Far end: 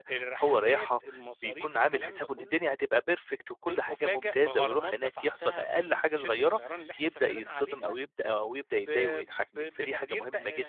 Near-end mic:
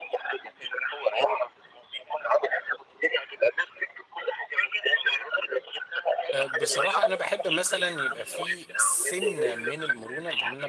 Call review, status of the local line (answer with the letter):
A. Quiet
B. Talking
B